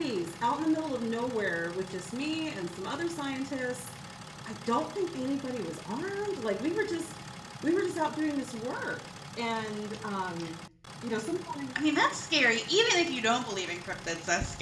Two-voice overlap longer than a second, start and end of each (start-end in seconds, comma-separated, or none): none